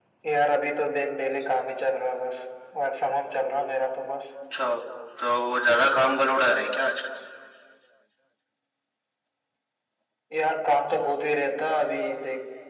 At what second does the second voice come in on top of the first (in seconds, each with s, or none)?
none